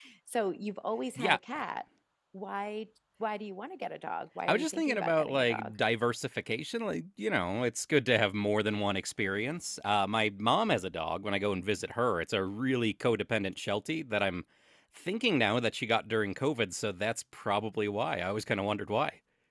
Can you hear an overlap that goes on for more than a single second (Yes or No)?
Yes